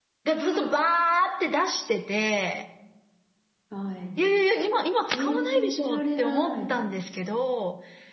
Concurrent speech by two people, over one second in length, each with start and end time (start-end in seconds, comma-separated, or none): 5.1-6.6